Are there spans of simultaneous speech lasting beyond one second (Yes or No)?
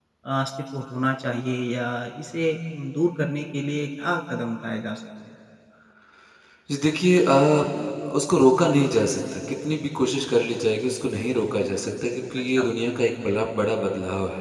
No